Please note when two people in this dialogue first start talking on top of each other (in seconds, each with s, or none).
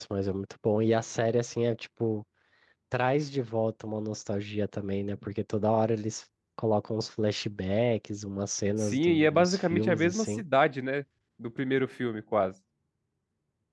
8.8 s